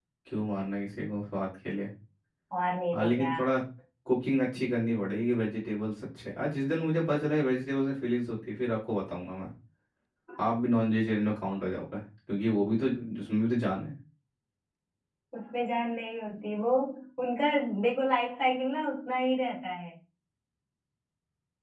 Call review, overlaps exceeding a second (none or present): none